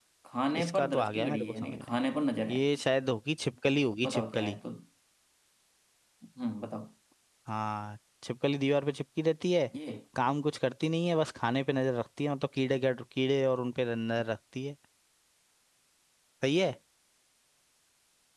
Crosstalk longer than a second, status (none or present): present